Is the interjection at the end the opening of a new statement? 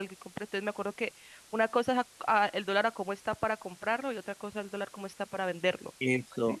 Yes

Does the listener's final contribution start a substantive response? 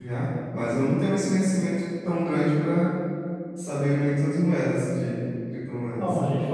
Yes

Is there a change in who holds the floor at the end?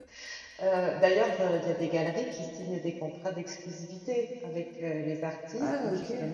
No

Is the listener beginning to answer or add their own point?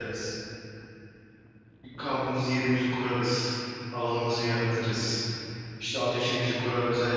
No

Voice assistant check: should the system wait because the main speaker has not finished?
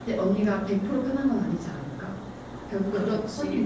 No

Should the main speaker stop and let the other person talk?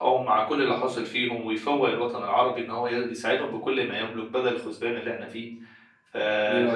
No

